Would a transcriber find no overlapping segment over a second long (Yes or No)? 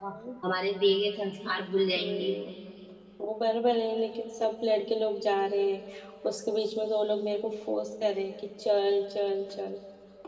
Yes